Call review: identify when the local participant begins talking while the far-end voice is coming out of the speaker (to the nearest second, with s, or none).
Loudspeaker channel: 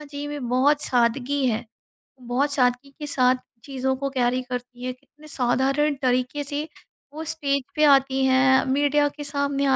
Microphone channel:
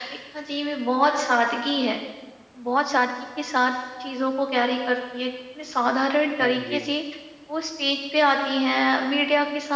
6 s